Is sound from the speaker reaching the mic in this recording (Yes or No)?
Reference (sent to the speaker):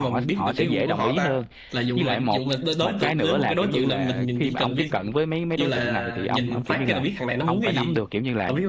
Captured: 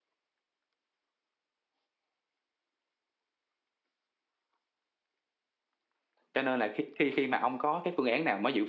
No